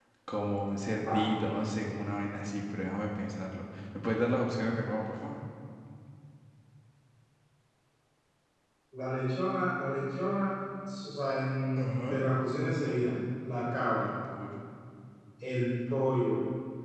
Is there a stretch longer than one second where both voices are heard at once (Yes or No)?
No